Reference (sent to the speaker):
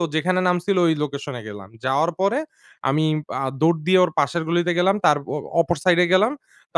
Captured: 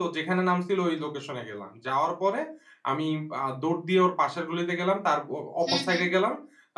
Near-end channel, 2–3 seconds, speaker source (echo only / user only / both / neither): echo only